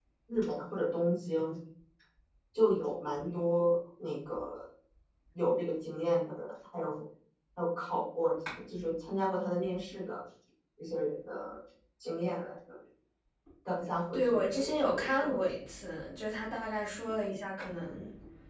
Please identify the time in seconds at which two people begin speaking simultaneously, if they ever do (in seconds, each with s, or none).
14.1 s